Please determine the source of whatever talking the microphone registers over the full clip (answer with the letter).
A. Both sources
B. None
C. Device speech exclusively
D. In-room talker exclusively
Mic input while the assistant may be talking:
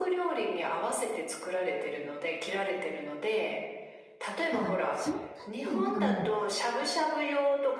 A